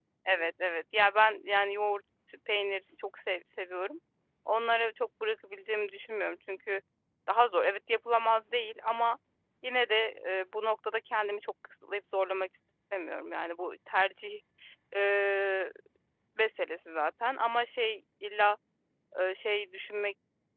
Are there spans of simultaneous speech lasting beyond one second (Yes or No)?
No